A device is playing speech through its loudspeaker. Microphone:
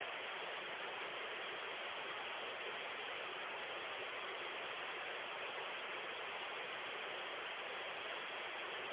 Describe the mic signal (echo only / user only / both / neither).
neither